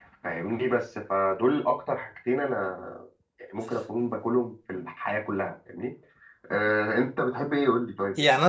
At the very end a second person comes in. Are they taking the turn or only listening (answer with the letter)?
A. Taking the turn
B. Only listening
A